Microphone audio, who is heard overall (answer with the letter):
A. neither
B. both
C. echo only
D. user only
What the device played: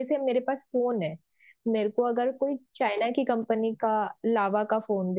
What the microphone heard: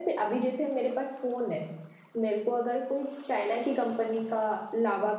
C